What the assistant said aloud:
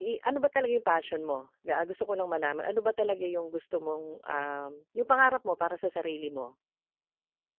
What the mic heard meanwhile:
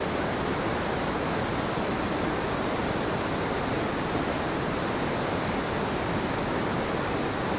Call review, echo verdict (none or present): none